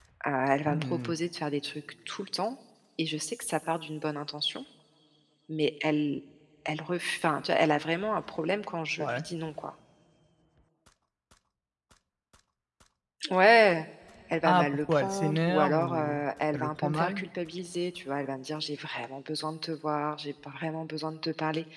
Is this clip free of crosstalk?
No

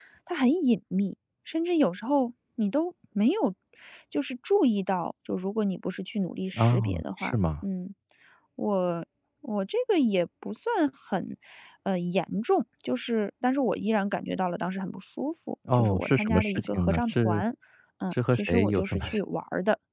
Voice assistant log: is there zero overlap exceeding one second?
No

